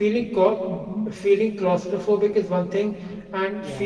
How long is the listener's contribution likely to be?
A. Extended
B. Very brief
B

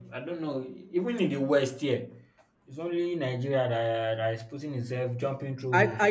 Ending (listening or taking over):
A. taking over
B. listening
A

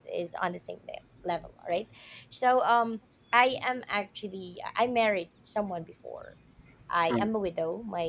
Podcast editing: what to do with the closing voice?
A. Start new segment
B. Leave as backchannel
B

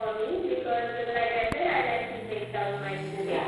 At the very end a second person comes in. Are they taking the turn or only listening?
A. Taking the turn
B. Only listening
B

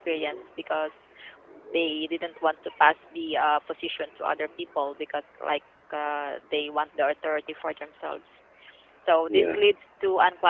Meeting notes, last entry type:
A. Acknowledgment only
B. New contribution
A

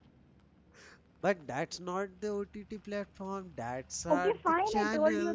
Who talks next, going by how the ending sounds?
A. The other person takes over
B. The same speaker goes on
A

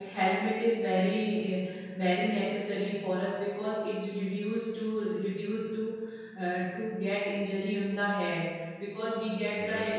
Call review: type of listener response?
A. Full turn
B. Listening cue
B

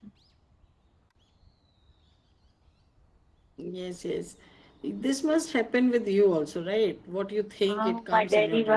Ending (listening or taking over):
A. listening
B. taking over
B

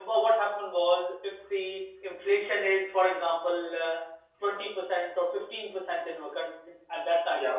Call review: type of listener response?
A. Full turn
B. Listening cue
B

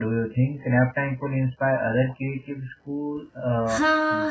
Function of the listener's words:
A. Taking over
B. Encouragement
A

